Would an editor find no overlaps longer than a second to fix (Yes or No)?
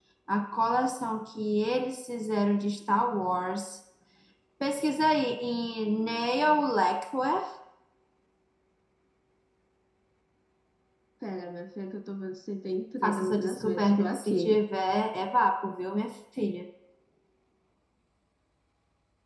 No